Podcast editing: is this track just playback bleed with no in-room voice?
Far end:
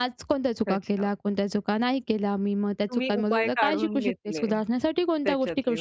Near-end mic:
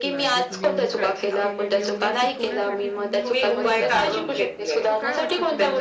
No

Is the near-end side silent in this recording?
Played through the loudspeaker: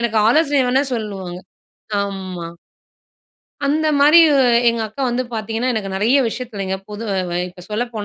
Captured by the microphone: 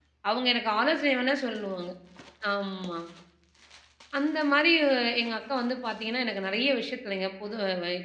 Yes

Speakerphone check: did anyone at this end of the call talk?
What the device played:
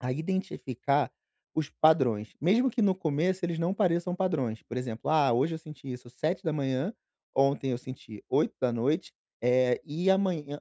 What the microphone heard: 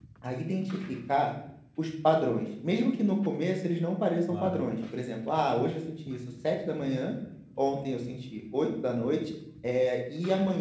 Yes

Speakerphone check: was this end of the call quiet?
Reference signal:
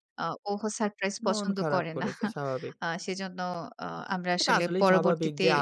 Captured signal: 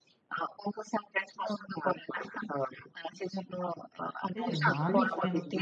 No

